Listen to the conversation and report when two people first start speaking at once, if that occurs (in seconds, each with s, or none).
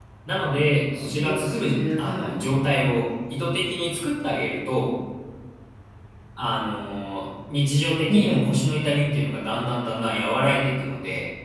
0.9 s